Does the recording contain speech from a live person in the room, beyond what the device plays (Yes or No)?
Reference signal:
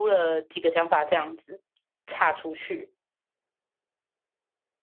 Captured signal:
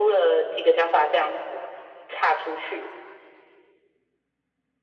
No